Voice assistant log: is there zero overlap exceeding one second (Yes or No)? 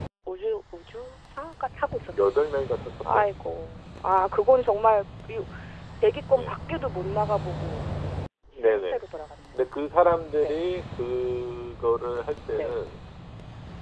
Yes